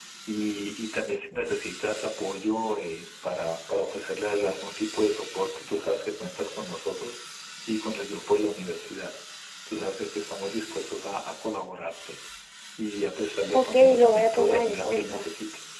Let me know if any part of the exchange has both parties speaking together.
Yes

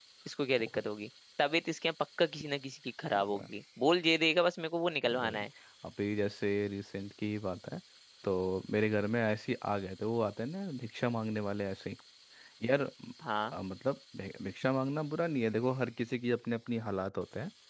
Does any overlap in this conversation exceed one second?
No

